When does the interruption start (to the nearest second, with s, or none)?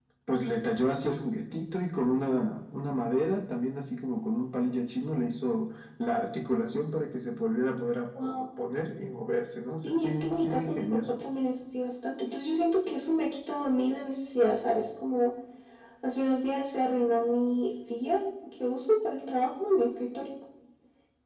10 s